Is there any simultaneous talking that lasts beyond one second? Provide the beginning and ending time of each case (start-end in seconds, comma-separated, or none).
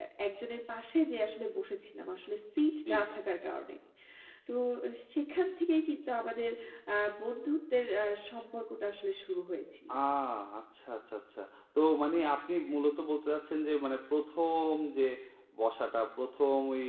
none